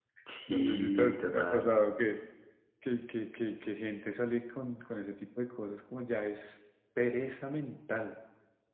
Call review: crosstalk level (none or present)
present